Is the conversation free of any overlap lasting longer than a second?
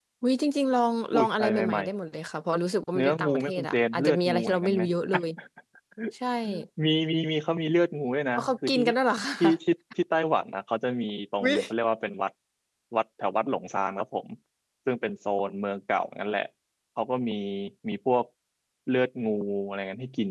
No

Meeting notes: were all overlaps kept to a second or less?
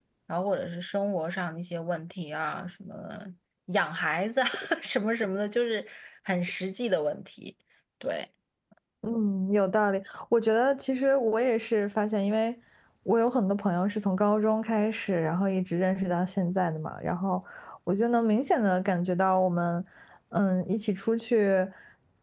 Yes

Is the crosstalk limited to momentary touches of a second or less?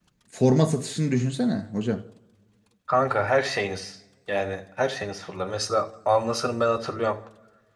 Yes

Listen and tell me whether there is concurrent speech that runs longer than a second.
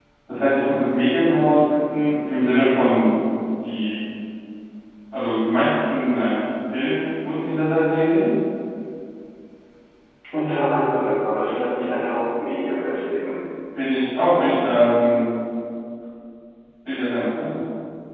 No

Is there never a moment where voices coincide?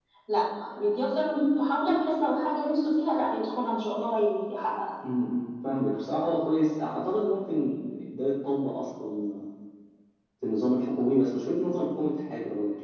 Yes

